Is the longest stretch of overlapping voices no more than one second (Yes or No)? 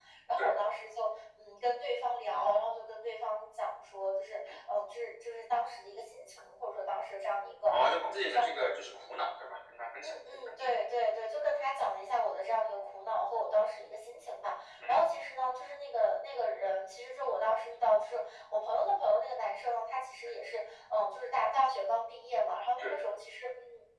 No